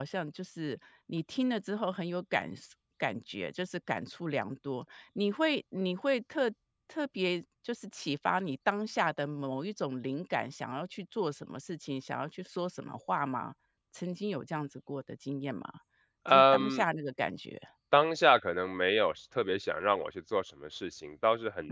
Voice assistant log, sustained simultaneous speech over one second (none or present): none